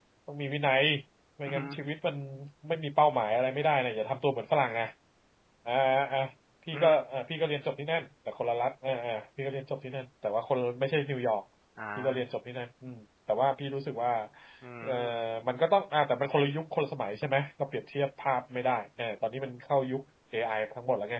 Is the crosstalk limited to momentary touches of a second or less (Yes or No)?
Yes